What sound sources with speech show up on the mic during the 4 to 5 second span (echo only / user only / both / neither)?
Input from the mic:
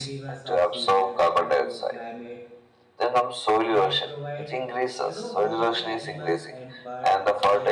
both